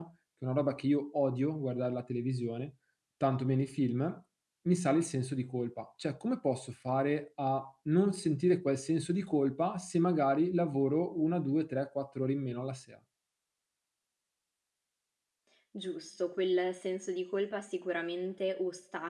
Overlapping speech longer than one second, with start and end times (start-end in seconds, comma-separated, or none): none